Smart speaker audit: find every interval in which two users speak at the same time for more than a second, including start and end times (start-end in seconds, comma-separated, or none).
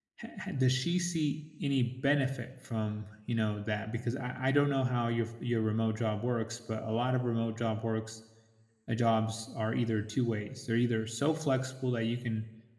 none